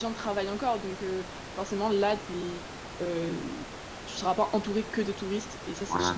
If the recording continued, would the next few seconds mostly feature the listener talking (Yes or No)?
Yes